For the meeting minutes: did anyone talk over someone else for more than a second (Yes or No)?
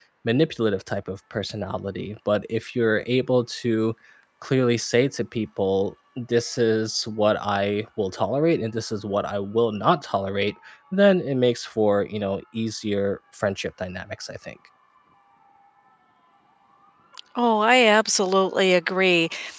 No